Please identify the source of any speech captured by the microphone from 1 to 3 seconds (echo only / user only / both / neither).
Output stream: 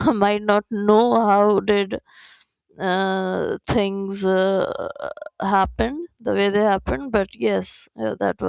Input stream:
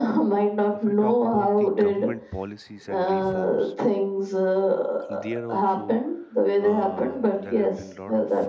both